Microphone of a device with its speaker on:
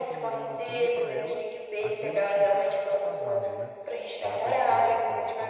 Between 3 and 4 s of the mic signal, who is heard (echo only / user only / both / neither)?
both